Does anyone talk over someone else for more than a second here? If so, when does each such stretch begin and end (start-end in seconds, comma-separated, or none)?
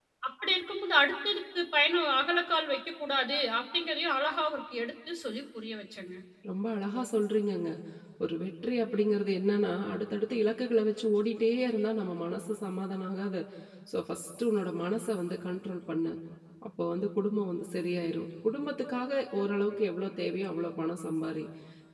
none